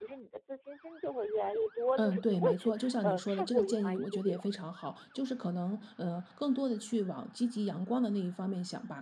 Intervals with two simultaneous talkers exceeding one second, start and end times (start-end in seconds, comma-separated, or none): 2.0-4.5